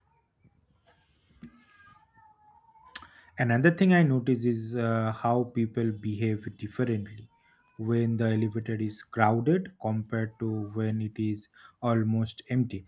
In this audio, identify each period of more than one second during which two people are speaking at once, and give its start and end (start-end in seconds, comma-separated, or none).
none